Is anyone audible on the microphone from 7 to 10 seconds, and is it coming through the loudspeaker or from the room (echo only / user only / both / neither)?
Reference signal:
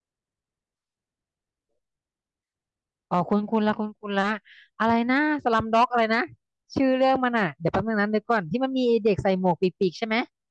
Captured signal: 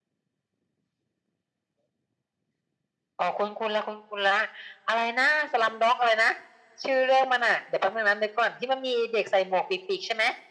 echo only